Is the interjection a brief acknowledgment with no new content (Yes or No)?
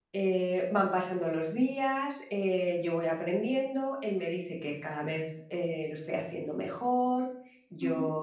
Yes